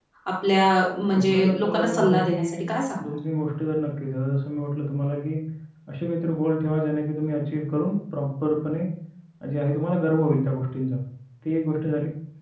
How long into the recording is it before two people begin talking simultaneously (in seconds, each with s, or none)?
1.1 s